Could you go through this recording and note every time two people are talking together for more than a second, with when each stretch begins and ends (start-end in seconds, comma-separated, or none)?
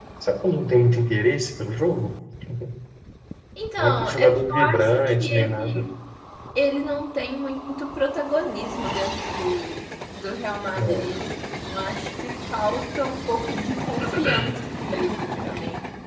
3.8-5.8